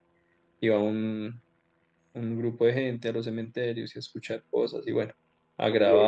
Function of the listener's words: taking over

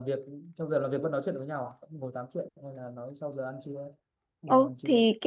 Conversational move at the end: taking over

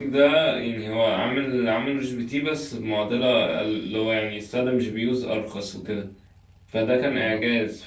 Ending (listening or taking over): listening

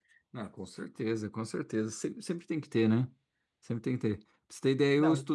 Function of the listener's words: listening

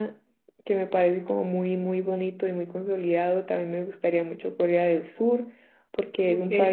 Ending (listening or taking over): listening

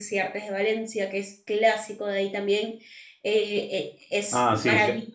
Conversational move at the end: taking over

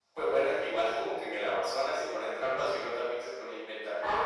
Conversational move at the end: taking over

